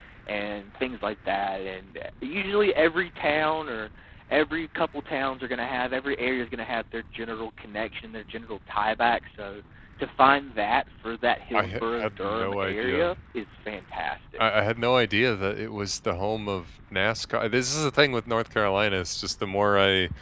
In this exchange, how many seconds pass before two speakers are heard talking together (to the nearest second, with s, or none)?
12 s